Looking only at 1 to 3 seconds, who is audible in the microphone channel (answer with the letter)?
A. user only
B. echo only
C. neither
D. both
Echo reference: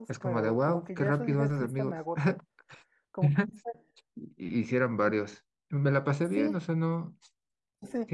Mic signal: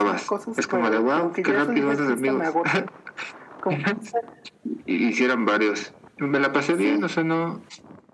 B